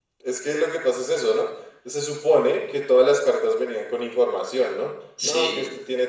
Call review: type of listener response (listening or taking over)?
listening